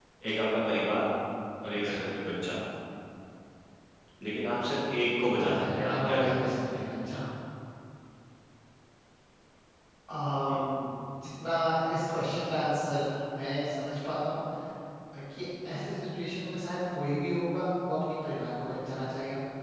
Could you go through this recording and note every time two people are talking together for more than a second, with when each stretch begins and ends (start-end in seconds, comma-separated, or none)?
5.2-6.6